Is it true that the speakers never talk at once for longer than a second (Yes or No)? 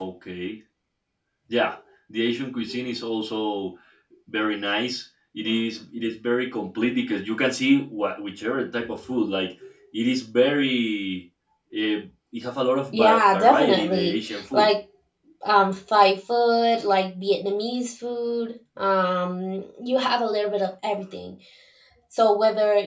No